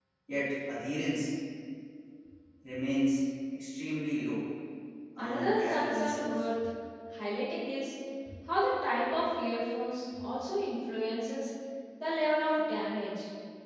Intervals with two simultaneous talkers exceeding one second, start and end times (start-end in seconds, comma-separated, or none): 5.2-6.4